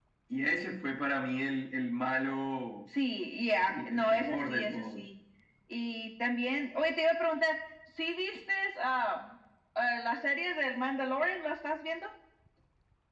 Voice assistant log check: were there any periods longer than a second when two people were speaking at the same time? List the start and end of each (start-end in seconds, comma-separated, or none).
3.7-5.1